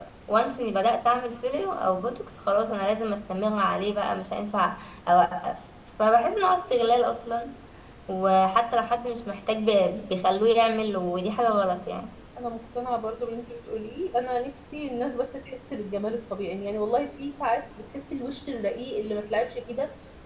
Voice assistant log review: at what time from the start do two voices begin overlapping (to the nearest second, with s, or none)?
none